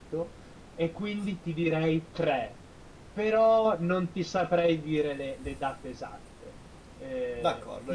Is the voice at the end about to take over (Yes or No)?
Yes